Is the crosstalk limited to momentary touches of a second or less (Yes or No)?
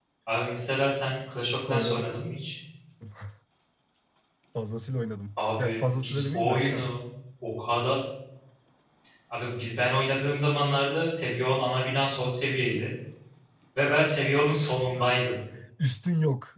No